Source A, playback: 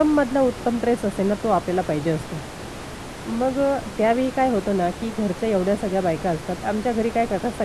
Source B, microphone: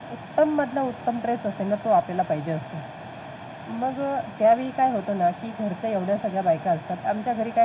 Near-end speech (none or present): none